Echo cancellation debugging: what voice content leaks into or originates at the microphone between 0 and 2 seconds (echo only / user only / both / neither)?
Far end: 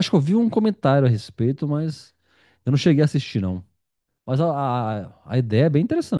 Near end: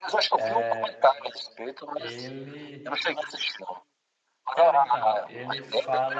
both